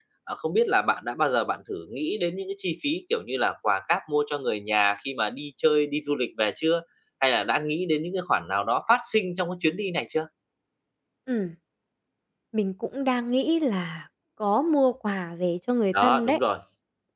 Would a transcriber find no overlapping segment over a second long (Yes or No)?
Yes